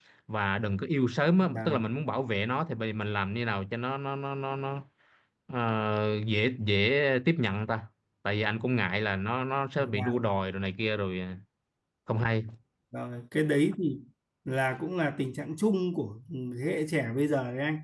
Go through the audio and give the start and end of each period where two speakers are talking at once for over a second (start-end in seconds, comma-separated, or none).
none